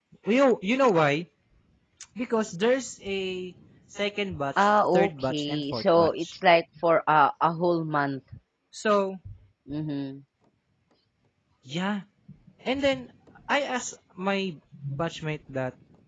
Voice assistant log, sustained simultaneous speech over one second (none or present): present